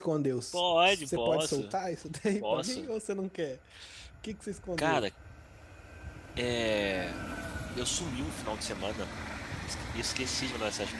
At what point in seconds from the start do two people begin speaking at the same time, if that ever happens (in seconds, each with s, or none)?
0.5 s